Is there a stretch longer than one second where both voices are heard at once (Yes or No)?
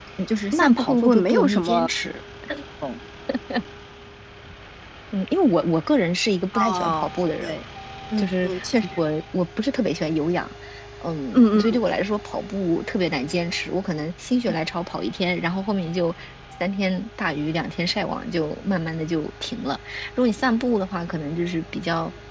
Yes